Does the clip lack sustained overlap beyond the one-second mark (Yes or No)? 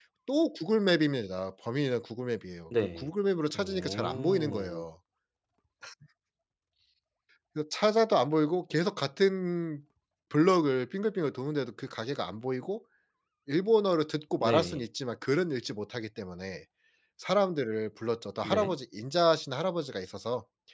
No